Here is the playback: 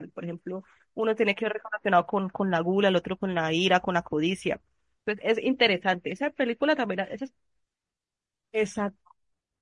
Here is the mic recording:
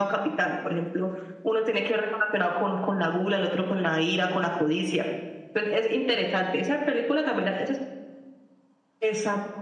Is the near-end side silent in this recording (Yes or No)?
Yes